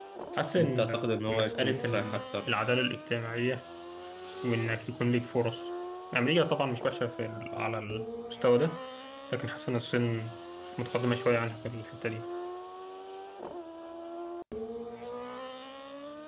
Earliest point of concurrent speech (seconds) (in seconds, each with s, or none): 0.6 s